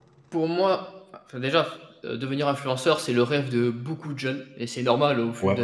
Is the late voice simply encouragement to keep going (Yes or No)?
Yes